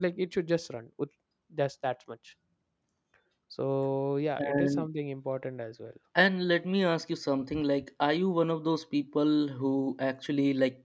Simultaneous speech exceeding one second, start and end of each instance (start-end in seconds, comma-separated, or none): none